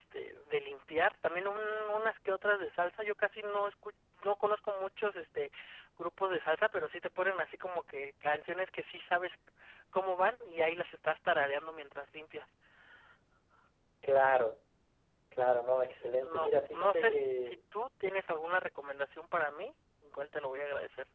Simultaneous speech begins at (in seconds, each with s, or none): 15.9 s